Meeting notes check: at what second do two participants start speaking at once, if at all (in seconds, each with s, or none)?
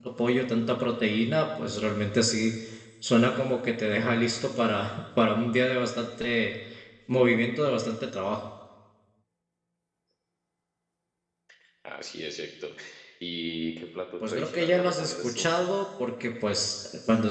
14.2 s